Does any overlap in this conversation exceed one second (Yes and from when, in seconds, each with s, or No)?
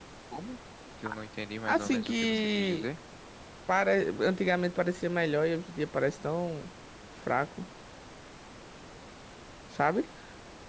Yes, from 1.7 s